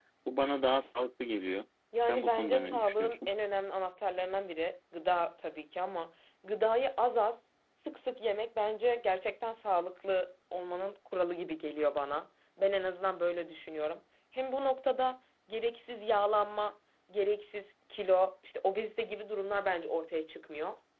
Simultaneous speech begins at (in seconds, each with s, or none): 1.9 s